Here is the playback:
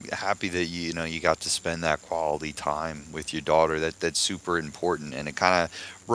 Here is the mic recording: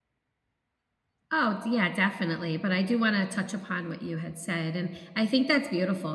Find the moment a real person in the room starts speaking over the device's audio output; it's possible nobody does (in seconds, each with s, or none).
1.3 s